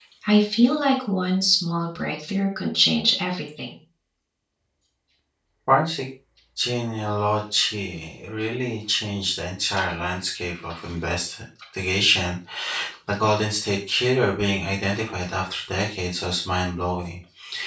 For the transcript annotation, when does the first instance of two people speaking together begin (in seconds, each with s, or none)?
none